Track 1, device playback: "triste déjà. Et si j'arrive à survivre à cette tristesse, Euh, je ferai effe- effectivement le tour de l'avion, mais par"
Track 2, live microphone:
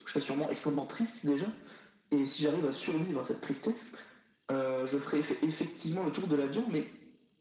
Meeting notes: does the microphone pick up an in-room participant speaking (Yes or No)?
No